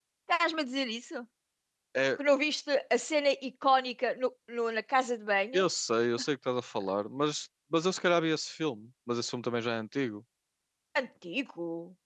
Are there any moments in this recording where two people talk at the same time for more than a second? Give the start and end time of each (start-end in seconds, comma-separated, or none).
none